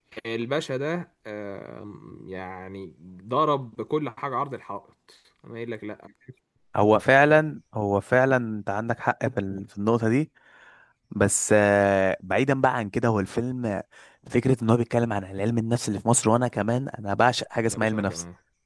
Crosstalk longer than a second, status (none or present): none